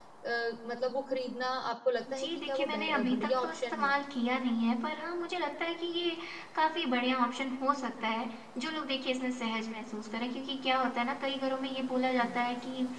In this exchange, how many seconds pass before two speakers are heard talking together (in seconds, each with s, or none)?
2.1 s